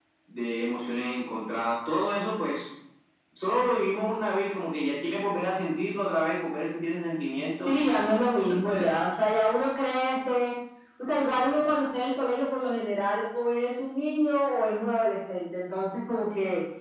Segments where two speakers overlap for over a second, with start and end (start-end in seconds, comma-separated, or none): 7.7-8.9